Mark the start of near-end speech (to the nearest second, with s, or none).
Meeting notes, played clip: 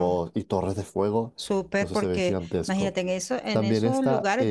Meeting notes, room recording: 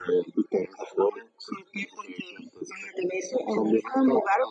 none